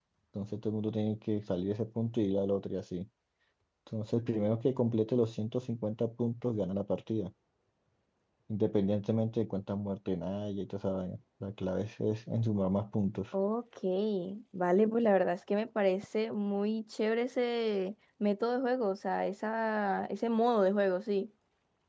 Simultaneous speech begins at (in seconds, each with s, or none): none